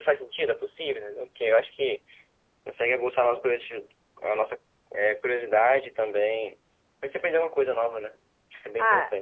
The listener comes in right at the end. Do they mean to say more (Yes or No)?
Yes